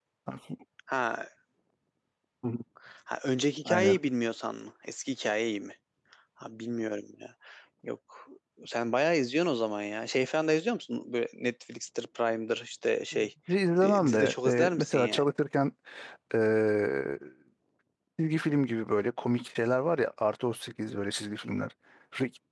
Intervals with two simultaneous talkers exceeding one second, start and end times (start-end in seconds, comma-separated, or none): 13.8-15.2